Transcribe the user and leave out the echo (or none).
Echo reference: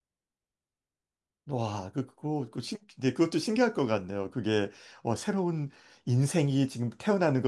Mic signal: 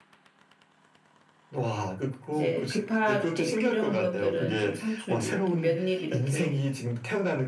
이제 급하게 필요한 것들은 좀 상추 이렇게 몇 입 이렇게